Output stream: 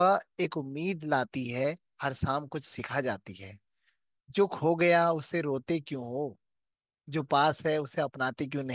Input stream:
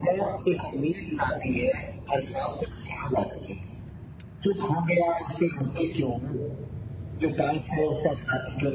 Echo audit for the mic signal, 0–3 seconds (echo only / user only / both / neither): echo only